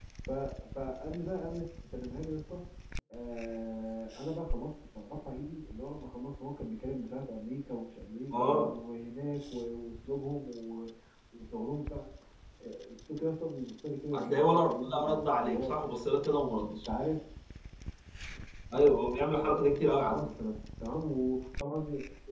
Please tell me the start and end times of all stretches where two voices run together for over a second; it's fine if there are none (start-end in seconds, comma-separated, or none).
14.1-15.8